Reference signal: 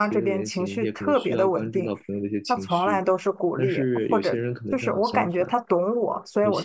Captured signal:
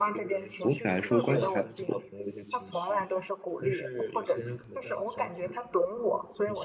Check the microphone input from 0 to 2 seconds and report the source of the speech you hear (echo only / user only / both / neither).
both